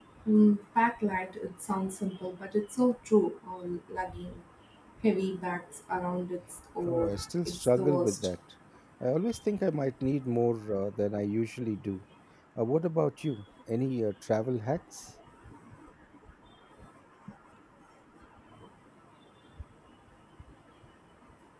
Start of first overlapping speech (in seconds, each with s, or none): 6.9 s